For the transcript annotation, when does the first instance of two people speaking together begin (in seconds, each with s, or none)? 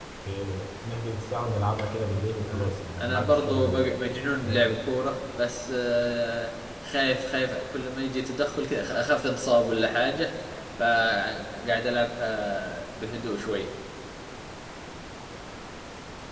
2.5 s